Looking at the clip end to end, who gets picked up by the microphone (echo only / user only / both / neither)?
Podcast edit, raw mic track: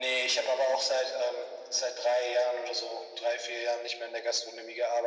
echo only